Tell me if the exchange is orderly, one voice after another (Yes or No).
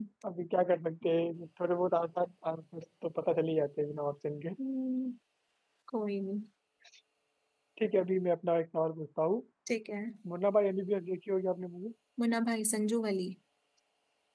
Yes